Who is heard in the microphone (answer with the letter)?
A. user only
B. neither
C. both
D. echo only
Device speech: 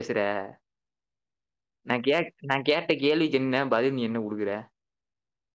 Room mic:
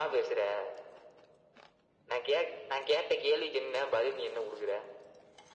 D